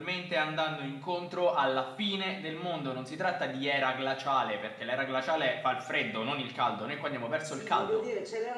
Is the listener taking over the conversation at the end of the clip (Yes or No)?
Yes